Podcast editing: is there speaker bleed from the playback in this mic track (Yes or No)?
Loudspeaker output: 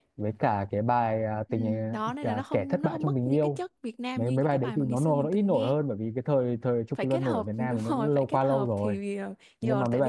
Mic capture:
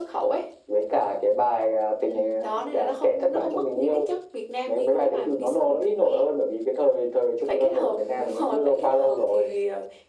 Yes